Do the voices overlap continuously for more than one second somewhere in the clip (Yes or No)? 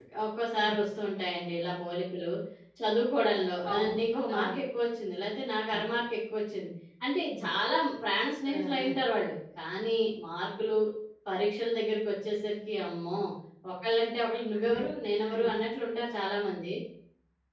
No